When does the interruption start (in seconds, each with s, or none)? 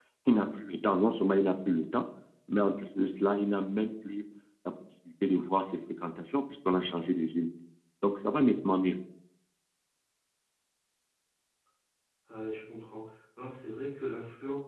none